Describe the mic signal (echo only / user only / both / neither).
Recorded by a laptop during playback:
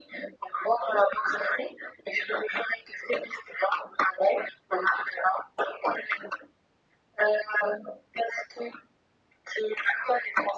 echo only